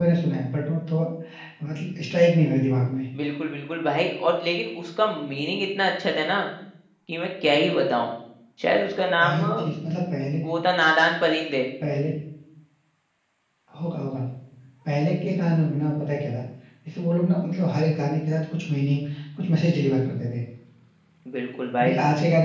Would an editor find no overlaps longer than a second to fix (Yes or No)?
Yes